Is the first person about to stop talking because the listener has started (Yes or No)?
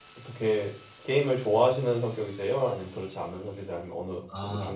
Yes